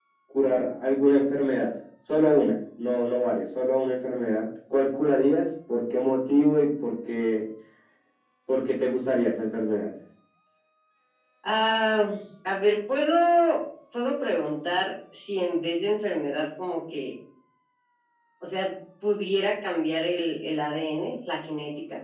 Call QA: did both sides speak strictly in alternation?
Yes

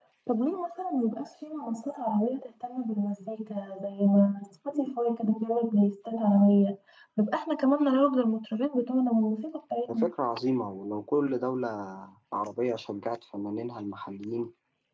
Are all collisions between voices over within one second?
Yes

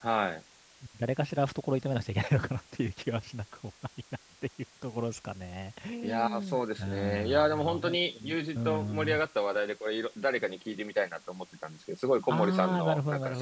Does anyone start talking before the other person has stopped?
Yes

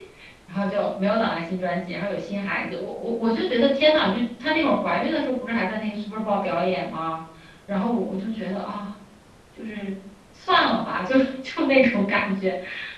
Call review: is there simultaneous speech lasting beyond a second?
No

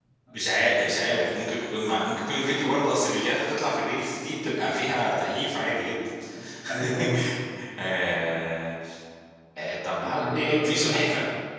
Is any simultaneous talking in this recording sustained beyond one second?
Yes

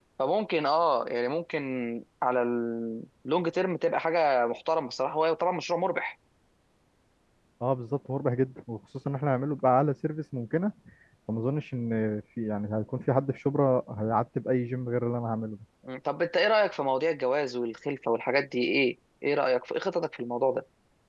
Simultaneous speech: No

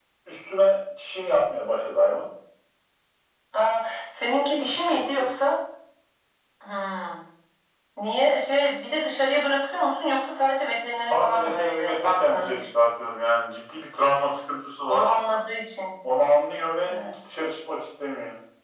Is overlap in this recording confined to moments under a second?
No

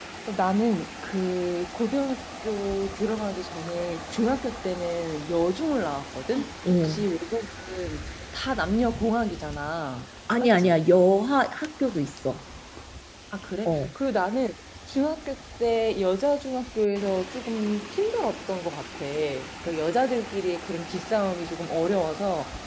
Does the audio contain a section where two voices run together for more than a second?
No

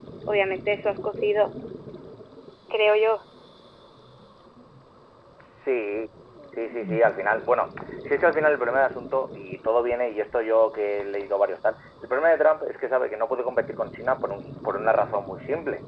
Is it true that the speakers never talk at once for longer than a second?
Yes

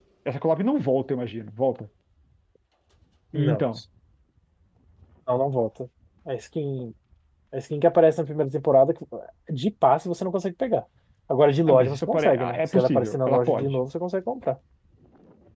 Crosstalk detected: Yes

